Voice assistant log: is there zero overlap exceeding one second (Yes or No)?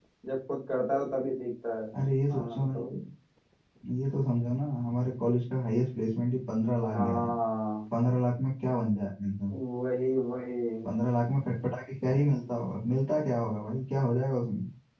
Yes